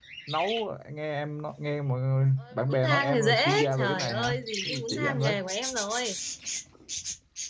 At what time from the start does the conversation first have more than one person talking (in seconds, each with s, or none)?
2.4 s